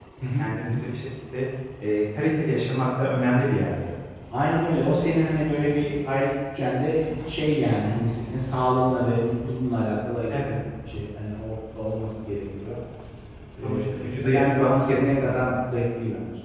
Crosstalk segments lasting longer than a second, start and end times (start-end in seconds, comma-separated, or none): 13.6-15.4